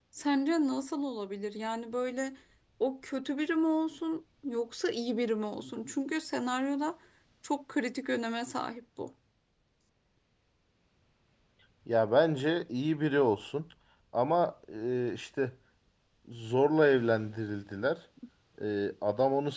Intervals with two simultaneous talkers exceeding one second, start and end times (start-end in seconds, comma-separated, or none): none